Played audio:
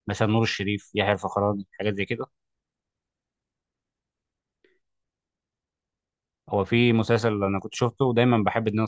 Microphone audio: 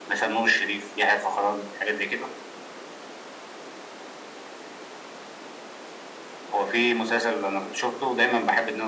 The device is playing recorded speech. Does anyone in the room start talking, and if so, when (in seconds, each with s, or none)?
none